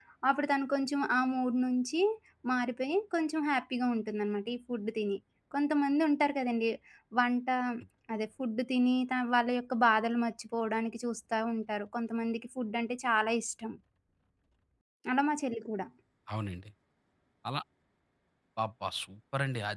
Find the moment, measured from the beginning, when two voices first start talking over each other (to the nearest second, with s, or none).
none